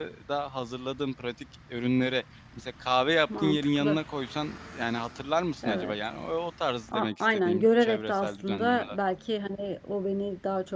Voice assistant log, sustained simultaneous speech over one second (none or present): present